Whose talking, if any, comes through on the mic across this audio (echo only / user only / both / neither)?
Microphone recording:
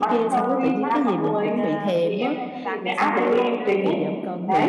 both